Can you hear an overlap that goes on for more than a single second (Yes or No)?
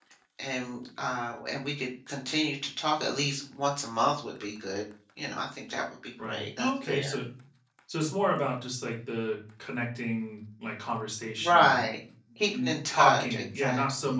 Yes